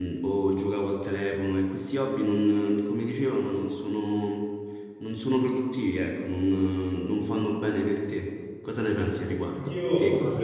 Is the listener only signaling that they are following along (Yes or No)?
No